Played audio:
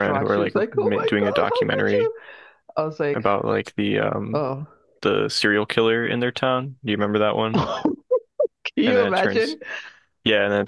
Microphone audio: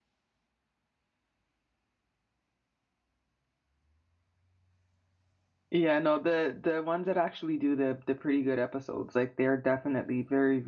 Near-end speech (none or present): present